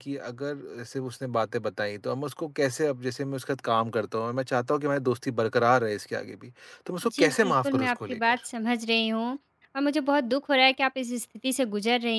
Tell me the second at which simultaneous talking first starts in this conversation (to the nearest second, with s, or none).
7 s